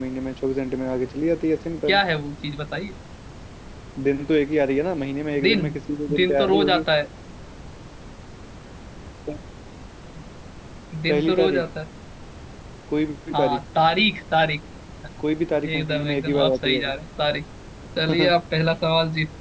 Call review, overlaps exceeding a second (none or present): present